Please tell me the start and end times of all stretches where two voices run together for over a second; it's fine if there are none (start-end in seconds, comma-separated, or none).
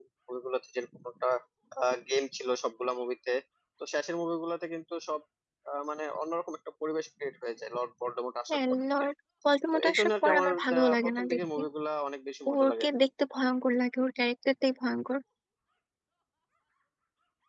9.7-11.6